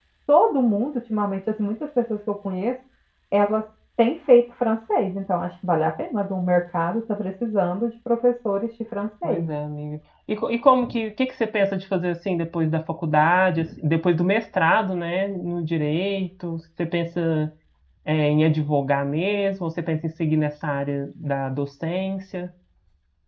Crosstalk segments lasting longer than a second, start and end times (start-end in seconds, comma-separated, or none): none